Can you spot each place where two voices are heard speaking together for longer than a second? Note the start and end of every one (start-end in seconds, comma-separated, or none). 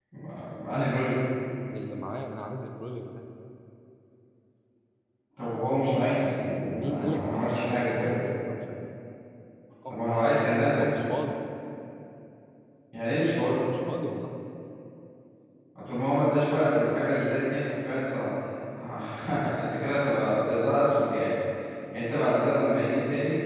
6.7-8.2